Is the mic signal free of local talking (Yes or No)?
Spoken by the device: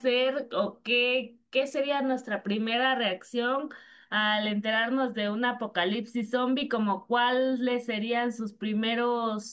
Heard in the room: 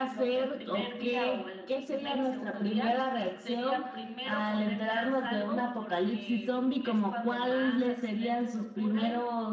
No